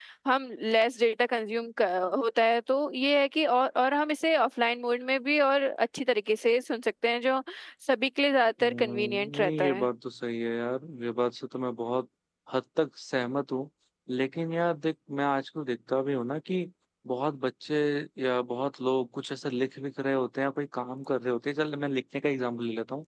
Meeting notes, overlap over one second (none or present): present